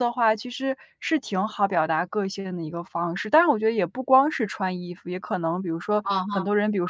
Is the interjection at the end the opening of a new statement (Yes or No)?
No